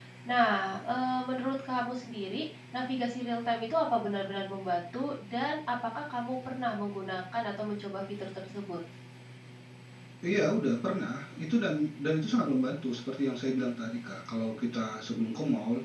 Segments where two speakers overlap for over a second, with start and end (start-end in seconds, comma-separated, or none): none